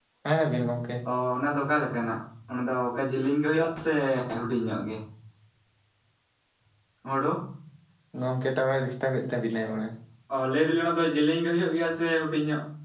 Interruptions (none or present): none